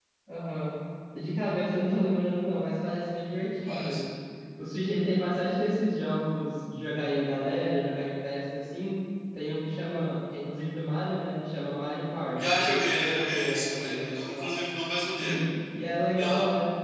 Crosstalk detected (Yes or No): Yes